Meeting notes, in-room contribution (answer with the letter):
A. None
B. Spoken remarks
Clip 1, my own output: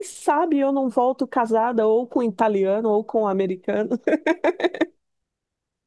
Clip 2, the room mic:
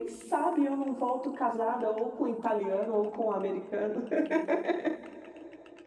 A